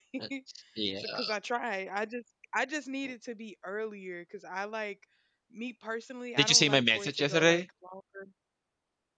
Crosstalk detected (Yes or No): Yes